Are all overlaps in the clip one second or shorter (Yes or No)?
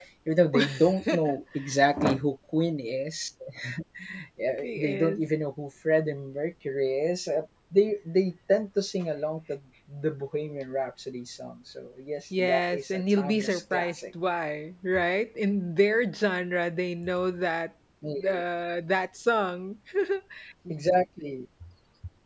No